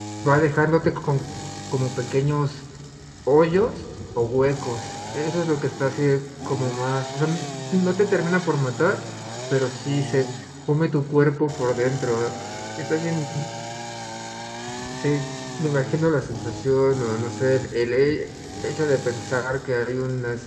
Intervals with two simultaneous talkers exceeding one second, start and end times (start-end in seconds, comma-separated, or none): none